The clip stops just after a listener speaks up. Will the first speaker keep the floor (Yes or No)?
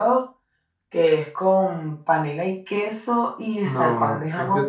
No